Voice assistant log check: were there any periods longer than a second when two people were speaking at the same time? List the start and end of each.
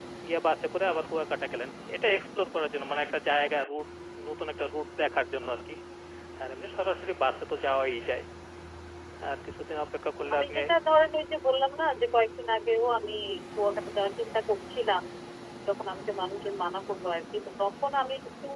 none

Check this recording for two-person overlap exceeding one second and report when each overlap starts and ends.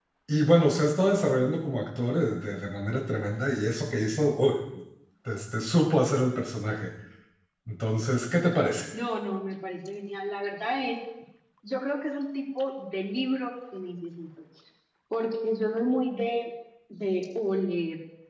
none

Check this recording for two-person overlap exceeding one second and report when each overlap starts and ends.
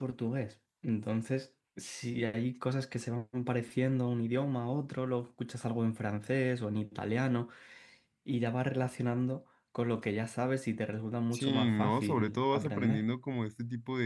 11.3-13.0

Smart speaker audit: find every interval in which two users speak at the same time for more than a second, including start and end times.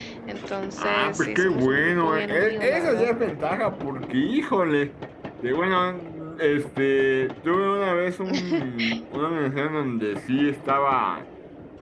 0.8-3.1

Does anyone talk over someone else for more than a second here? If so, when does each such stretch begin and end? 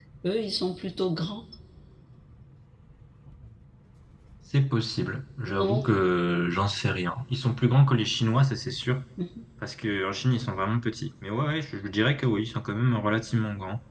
none

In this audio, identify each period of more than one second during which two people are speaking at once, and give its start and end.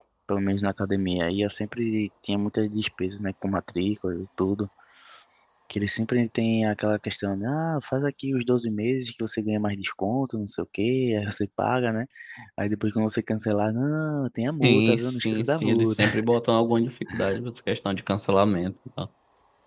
14.6-16.0

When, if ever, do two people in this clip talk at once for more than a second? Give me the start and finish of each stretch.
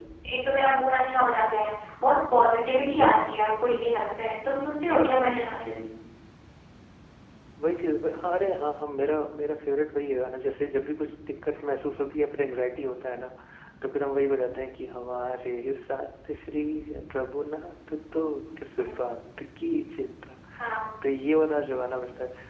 none

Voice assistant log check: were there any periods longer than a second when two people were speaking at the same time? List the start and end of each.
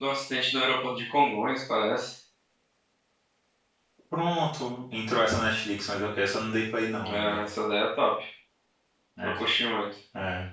none

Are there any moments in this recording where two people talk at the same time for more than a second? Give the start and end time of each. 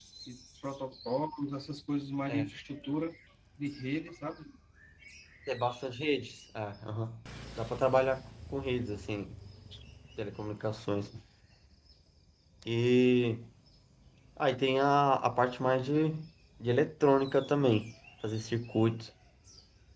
none

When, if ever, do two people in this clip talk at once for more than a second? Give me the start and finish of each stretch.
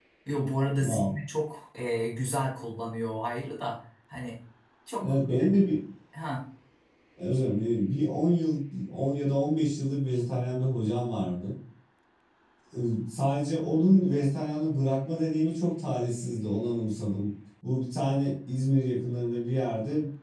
none

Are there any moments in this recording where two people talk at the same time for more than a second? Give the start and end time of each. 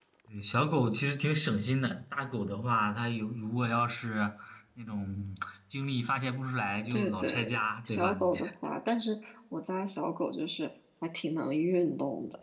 6.9-8.4

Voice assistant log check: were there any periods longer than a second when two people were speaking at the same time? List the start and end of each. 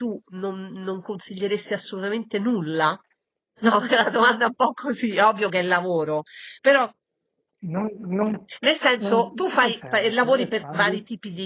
9.0-11.0

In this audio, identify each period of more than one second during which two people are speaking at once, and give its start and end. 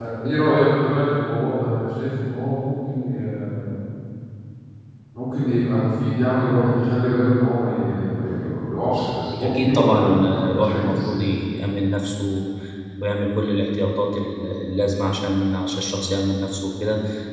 9.4-11.2

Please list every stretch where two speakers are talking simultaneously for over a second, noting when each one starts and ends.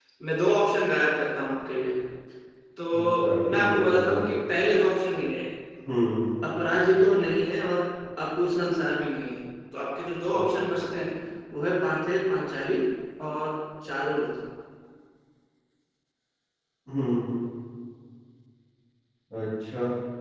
2.9-4.3

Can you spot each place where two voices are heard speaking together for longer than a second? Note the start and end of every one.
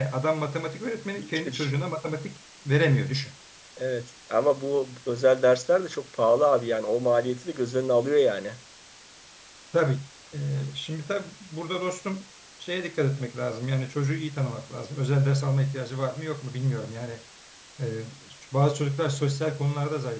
none

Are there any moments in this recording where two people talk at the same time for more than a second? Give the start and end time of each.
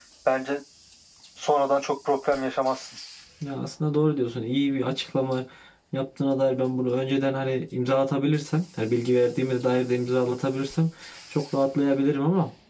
none

